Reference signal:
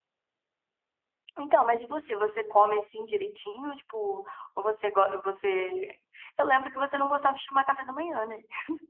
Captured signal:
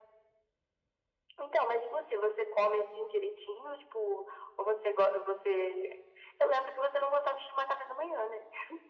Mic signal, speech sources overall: echo only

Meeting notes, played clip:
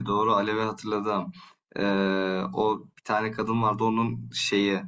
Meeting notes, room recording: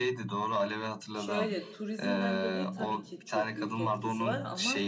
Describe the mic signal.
both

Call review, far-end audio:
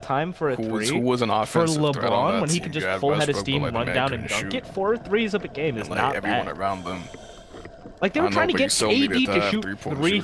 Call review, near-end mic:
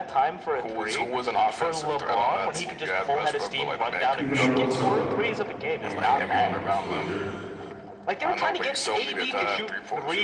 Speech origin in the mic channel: both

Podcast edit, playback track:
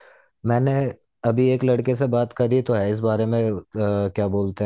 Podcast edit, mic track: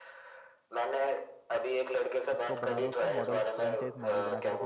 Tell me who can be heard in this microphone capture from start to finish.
both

